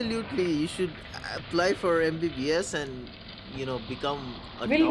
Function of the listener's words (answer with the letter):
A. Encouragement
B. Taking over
B